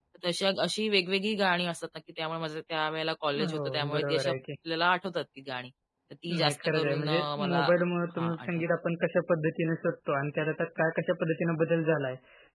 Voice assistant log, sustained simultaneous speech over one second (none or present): present